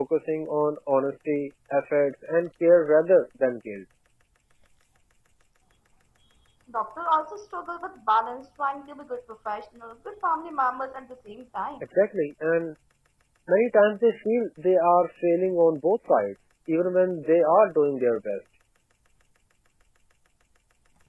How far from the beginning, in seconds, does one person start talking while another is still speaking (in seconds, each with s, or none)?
none